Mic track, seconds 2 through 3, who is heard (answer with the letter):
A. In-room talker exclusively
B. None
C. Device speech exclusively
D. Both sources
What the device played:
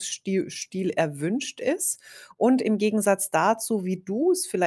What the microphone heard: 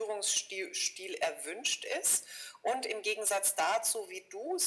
C